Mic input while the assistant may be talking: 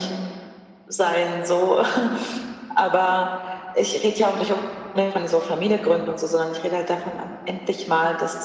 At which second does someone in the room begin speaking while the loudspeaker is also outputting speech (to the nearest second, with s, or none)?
none